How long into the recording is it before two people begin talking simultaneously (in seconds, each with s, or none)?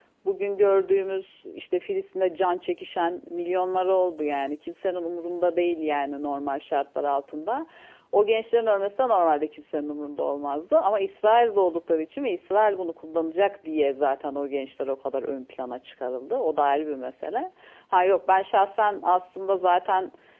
none